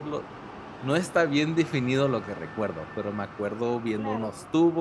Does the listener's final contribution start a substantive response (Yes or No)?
No